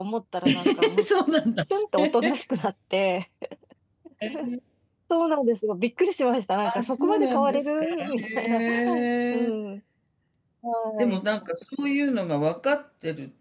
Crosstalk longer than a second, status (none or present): present